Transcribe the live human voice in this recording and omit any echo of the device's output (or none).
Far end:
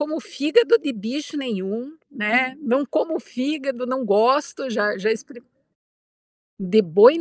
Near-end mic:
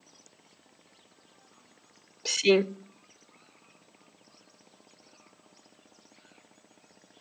Sim.